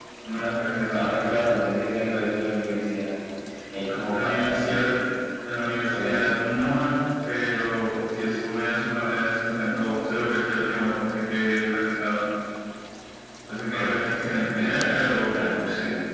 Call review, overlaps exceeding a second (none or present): present